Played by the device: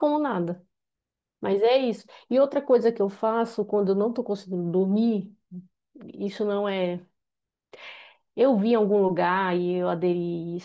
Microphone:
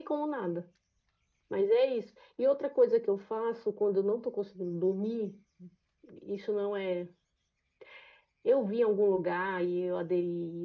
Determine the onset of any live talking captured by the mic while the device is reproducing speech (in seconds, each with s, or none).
none